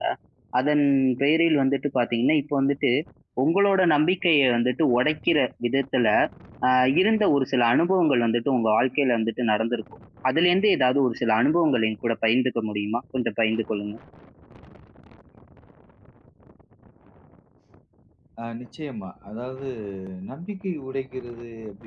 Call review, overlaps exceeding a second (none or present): none